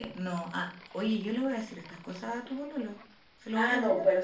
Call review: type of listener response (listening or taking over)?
taking over